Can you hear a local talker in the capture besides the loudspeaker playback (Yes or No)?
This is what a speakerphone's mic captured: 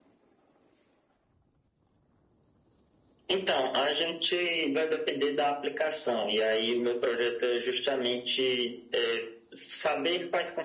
No